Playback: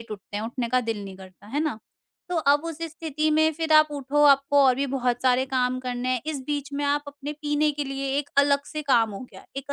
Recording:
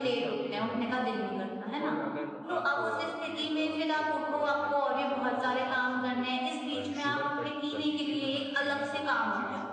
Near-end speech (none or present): present